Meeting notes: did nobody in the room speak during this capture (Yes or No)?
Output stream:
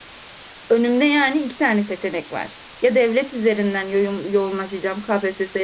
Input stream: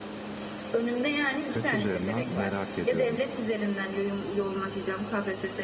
No